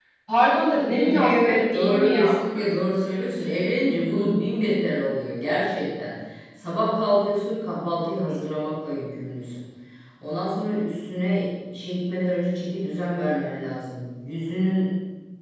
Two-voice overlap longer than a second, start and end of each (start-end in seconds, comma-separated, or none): 1.0-2.4